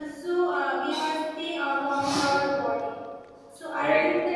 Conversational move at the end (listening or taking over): listening